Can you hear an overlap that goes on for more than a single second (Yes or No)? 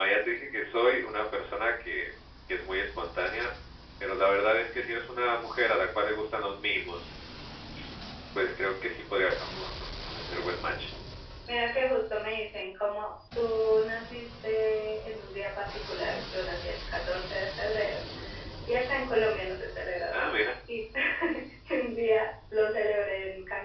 No